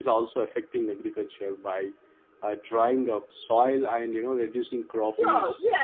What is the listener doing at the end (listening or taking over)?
taking over